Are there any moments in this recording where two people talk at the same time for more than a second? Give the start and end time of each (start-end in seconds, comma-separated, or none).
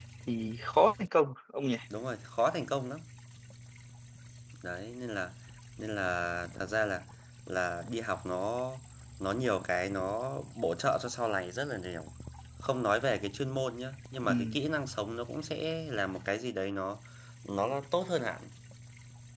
none